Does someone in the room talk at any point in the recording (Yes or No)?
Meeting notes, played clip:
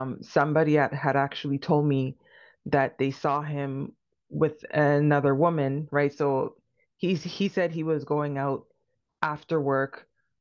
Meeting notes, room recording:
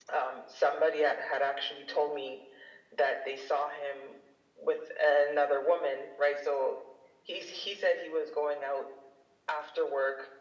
No